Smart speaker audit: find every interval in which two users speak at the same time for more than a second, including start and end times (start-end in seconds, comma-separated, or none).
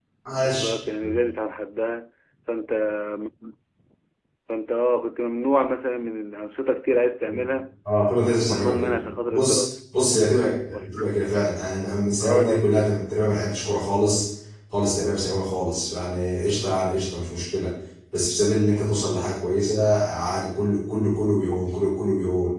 8.4-9.6